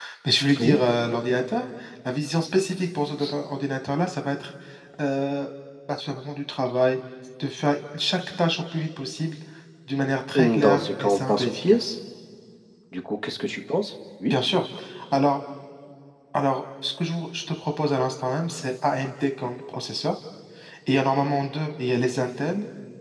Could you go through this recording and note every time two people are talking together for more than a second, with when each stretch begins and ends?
10.4-11.9

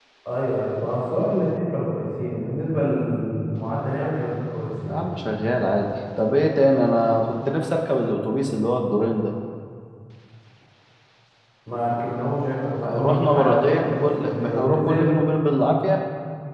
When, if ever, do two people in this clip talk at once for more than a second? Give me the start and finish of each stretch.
12.8-15.1

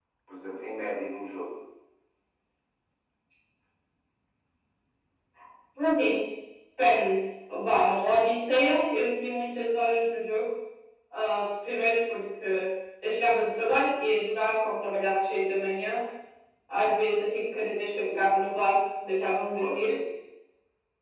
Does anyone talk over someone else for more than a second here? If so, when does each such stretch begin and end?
none

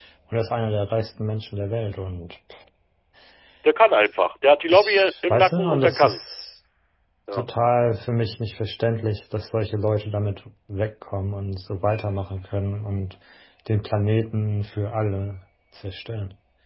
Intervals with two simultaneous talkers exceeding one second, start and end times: 4.7-6.2

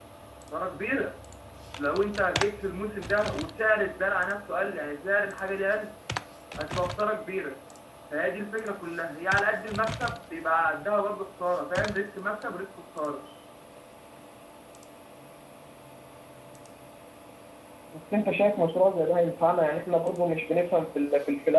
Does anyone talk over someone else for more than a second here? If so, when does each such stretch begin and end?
none

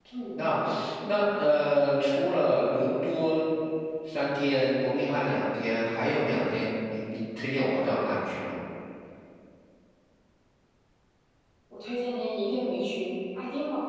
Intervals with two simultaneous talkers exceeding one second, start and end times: none

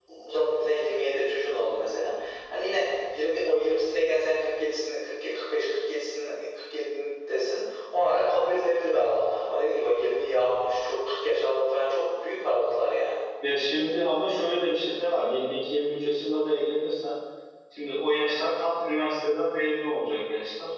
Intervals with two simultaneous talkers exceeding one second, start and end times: none

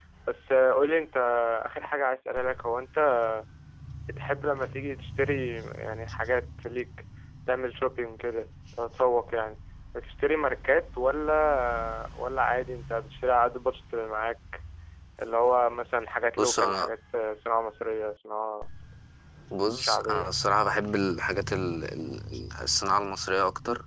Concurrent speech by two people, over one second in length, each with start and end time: none

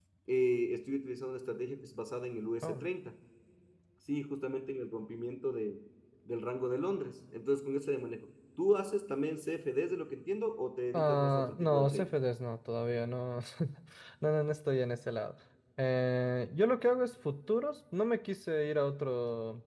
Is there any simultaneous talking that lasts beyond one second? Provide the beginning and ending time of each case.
10.9-12.2

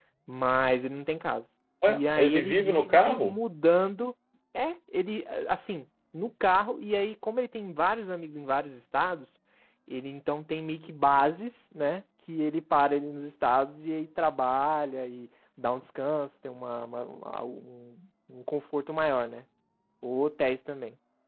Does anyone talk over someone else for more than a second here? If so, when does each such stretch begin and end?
1.9-3.3

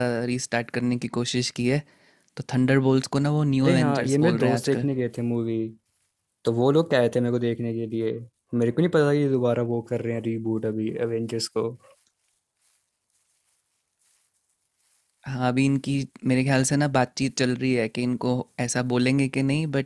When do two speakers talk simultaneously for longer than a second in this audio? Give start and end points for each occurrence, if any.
3.6-4.9

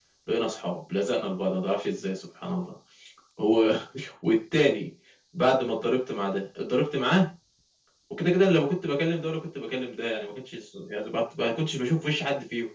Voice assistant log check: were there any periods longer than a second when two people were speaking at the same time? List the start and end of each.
none

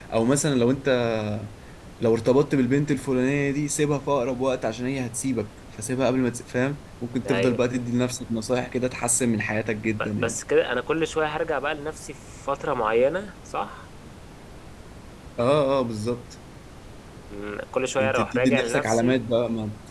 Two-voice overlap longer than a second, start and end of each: 18.0-19.2

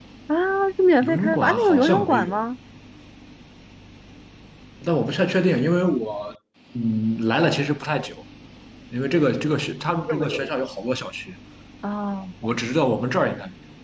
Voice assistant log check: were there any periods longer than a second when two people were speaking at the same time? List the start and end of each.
1.0-2.4

